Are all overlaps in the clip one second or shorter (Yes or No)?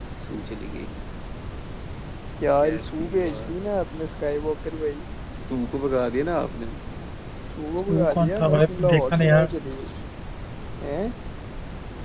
No